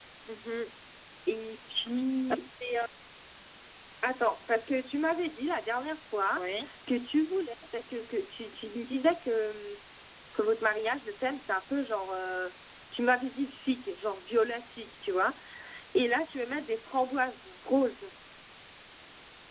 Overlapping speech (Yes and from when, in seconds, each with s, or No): No